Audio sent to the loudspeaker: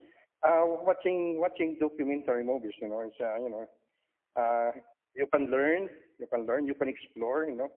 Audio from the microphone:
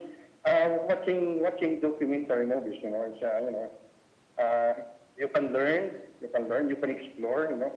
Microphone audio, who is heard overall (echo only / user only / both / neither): echo only